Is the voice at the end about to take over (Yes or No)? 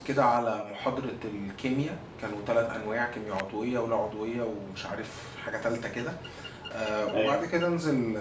No